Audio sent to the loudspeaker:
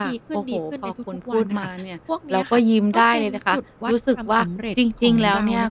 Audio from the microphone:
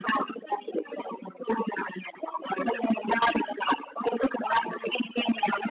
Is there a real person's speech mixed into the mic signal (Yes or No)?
No